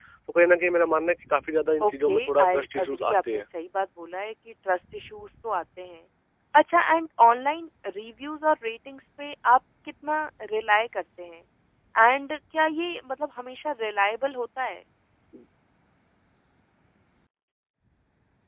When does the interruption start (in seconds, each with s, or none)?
1.8 s